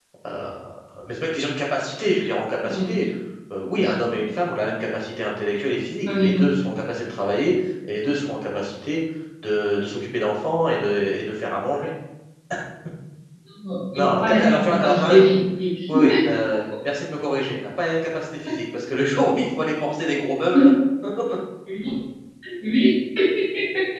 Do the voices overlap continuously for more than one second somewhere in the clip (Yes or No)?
Yes